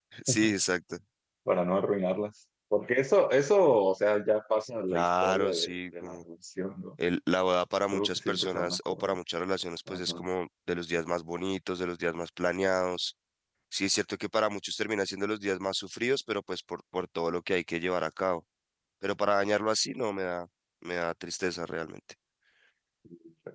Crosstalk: present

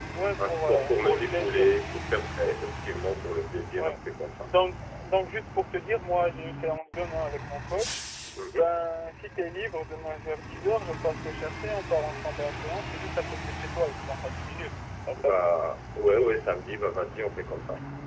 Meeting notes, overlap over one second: present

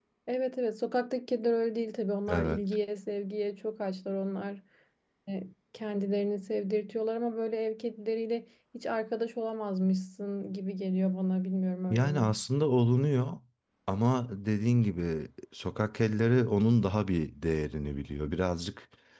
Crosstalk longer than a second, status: none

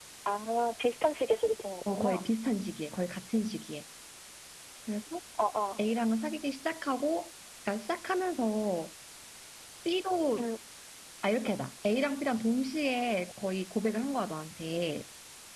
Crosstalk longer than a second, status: none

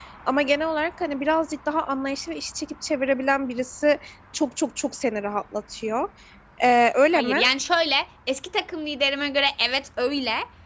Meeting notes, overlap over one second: none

